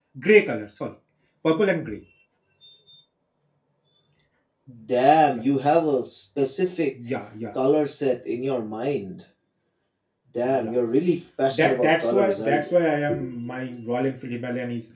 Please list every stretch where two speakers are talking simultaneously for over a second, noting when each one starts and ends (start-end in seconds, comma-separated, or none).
11.5-12.7